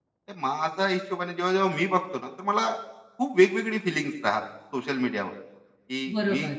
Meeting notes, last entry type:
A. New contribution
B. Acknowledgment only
B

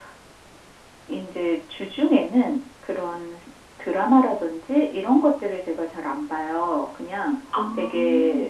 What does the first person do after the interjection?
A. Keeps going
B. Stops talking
A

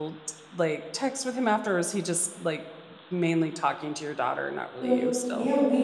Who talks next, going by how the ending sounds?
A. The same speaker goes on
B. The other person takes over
B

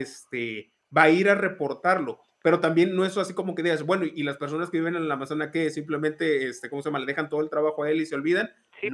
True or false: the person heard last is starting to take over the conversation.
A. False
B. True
B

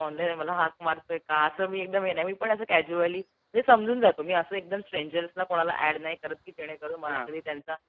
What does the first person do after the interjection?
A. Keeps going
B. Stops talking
A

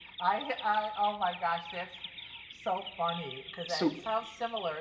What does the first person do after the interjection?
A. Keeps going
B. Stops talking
A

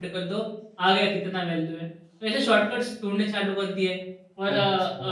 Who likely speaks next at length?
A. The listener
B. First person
A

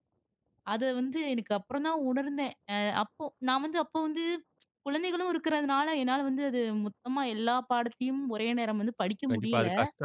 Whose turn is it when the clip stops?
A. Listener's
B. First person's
A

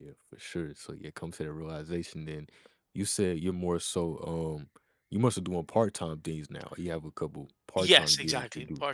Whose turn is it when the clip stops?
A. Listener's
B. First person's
A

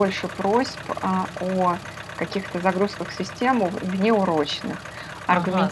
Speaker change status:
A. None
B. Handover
B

